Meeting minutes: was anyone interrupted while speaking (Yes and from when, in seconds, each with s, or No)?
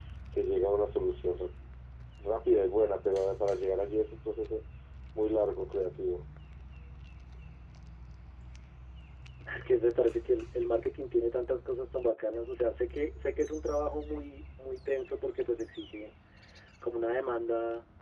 No